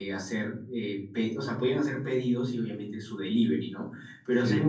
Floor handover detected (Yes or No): No